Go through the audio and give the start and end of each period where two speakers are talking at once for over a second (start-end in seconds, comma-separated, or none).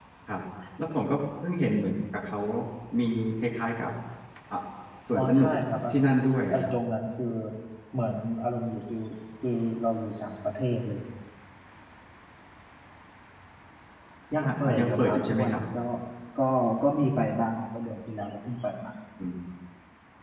14.4-15.6